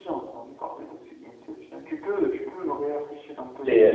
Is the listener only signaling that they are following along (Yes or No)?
No